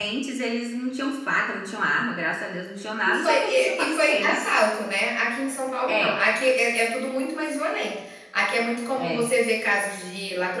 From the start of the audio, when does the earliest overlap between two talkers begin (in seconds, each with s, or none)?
3.1 s